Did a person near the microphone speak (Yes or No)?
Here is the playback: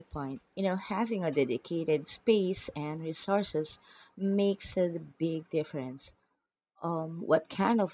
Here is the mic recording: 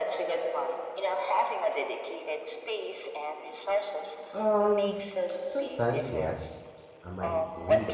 Yes